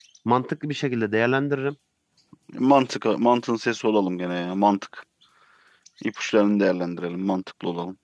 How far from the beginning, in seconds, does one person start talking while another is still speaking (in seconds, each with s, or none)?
none